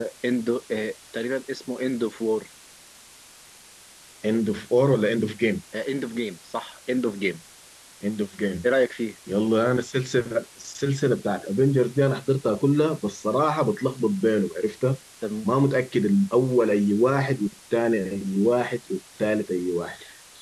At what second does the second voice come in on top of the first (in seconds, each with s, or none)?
none